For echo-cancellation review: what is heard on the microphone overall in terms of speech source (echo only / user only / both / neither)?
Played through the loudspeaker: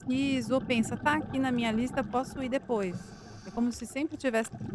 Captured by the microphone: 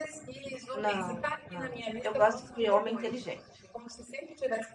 both